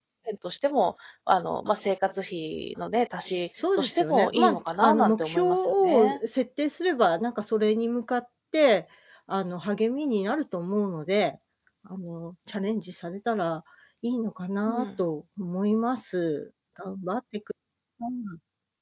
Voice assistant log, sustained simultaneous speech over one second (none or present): present